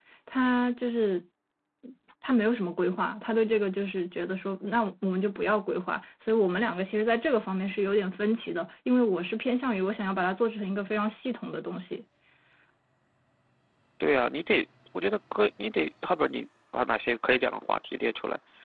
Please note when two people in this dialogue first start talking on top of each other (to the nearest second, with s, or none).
none